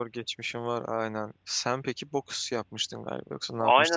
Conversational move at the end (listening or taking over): taking over